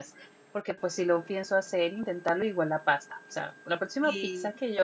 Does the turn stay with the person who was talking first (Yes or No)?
Yes